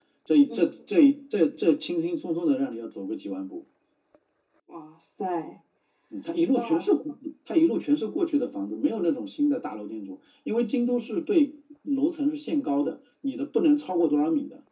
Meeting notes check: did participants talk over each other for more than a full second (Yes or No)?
No